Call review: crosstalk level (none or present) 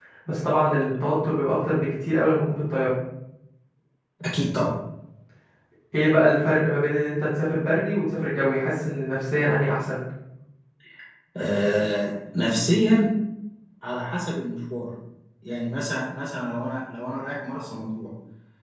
none